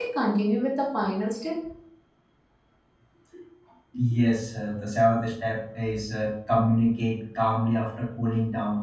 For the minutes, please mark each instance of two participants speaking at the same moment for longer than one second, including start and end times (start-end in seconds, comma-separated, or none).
none